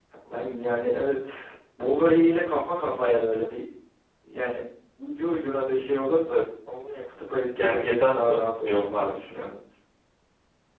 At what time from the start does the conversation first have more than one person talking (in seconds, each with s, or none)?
7.5 s